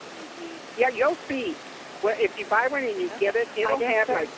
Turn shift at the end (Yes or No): Yes